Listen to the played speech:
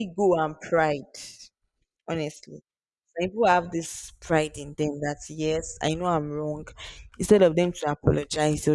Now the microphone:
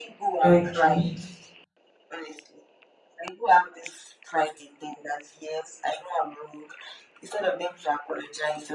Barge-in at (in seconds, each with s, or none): 0.4 s